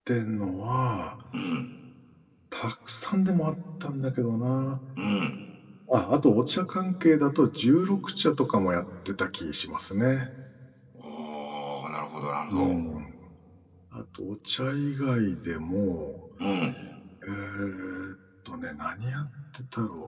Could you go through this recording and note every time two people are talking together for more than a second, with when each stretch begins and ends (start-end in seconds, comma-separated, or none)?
none